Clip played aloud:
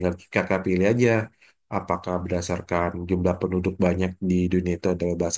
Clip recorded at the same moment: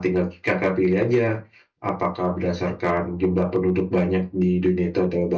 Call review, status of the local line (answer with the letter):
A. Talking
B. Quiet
B